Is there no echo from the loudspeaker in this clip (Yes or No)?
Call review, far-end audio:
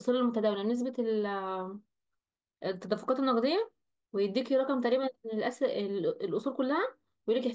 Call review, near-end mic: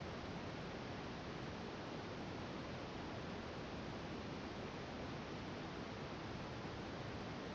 Yes